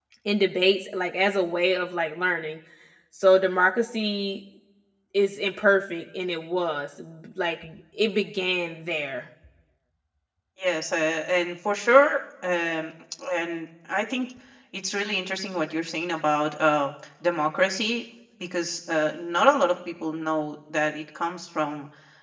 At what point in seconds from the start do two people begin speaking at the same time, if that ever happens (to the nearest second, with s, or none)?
none